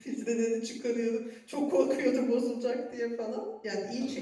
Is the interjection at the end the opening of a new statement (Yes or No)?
No